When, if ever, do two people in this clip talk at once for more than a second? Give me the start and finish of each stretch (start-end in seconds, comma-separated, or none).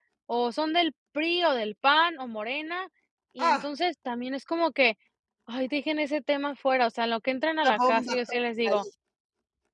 7.6-8.8